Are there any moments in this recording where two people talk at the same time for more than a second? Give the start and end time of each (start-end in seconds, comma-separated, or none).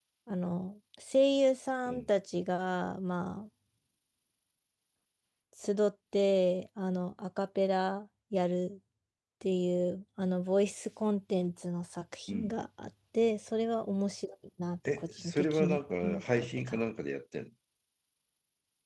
15.0-16.8